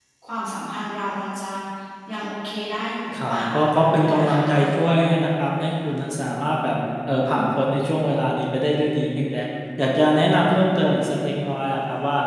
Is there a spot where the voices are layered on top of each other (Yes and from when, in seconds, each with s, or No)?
Yes, from 3.1 s